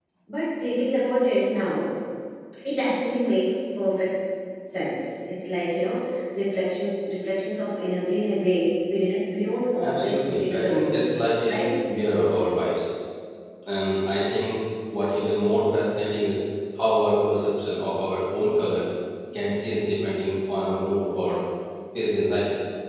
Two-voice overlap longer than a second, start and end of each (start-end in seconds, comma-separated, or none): 9.8-11.6